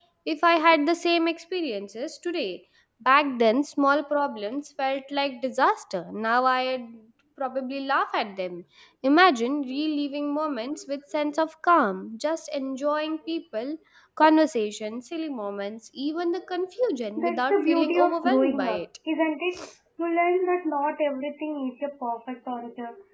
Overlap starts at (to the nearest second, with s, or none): 17 s